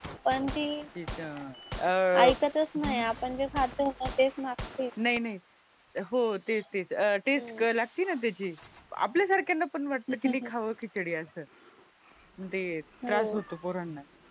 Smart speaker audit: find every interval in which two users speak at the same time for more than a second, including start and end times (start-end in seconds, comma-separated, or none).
none